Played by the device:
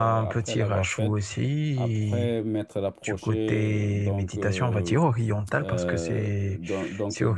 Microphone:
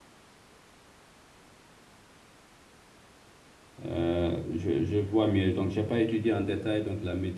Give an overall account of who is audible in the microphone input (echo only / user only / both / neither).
user only